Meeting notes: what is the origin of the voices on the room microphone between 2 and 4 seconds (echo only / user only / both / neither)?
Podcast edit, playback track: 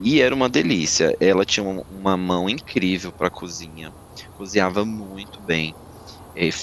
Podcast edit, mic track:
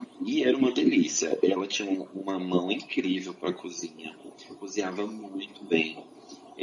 echo only